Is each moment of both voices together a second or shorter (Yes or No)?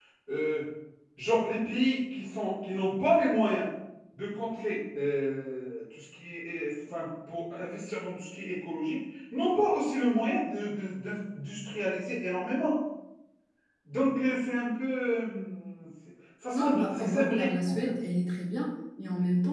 No